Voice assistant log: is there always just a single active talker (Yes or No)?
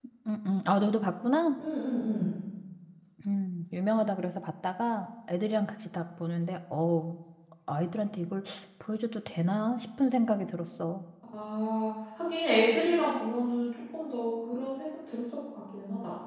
Yes